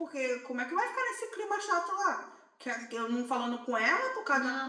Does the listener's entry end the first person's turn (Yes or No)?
No